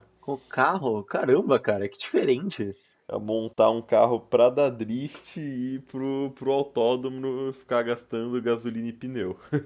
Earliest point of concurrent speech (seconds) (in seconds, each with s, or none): none